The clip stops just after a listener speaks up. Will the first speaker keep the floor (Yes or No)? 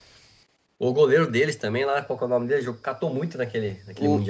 No